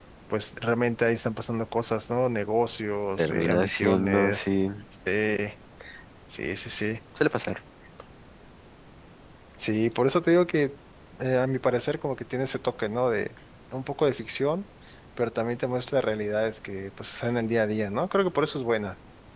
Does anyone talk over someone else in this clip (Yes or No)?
Yes